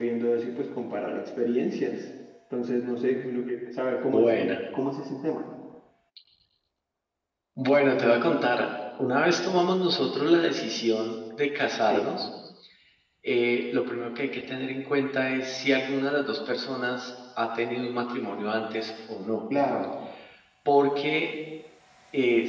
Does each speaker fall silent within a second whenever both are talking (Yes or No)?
Yes